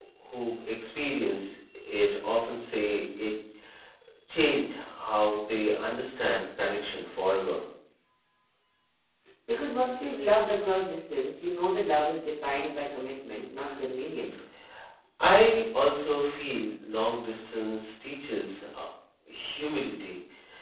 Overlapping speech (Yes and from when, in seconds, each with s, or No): No